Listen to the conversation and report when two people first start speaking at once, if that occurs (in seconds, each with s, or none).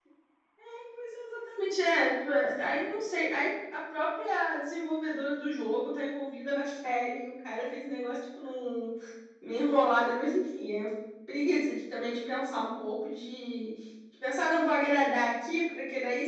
none